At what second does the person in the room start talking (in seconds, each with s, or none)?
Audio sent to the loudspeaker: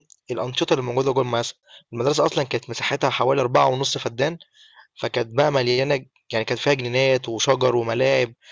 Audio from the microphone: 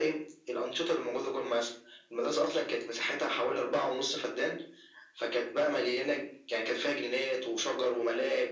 none